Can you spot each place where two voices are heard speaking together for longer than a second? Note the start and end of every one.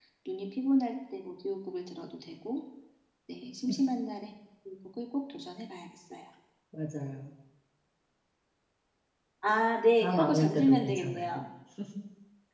10.0-11.4

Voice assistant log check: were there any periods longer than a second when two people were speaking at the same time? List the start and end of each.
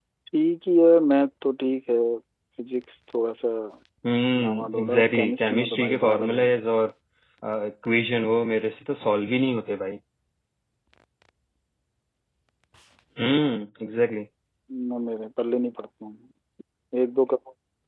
4.4-6.6

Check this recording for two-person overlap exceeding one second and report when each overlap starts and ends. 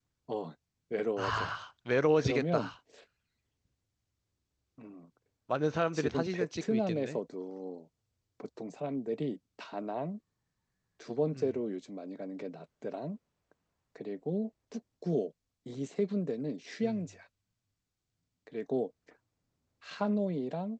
5.9-7.2

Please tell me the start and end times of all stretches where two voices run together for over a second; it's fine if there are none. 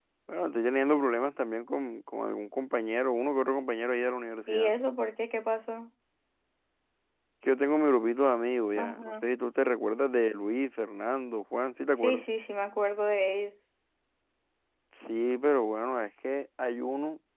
none

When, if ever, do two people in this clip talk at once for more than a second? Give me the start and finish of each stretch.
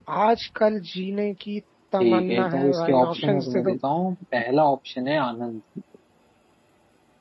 2.0-3.7

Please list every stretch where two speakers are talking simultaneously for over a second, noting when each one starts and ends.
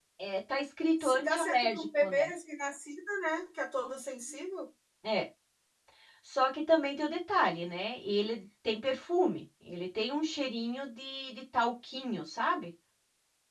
1.0-2.3

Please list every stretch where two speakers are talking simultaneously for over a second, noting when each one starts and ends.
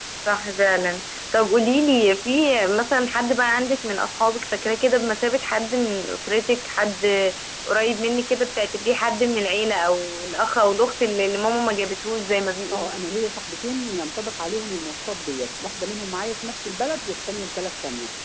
none

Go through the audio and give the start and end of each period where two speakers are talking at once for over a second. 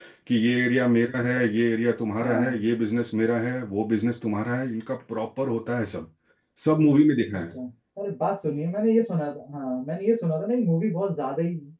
none

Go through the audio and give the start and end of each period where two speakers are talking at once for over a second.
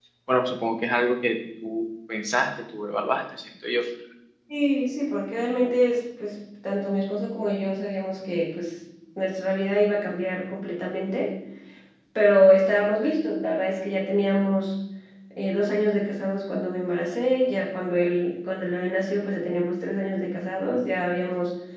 none

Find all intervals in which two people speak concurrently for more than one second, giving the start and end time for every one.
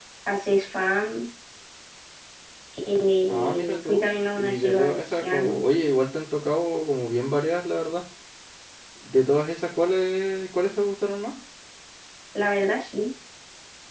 3.3-5.6

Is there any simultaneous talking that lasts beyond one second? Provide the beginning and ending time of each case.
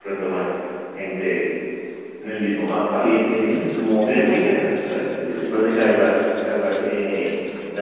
none

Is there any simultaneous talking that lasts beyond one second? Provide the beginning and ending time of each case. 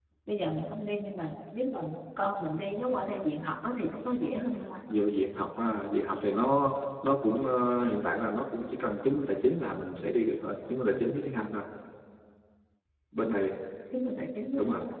none

